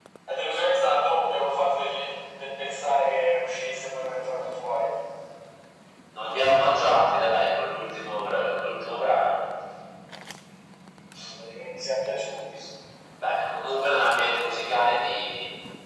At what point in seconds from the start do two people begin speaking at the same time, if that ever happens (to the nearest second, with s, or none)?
none